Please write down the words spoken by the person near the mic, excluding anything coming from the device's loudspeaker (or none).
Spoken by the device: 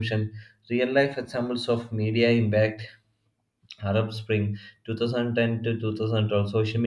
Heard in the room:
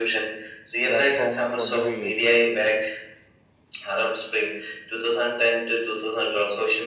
Platform for debate.